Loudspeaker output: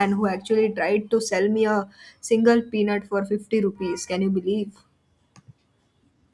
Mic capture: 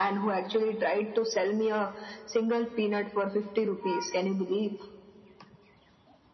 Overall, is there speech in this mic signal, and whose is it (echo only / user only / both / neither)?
echo only